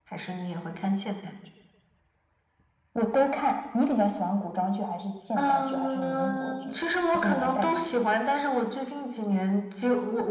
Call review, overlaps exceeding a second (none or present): present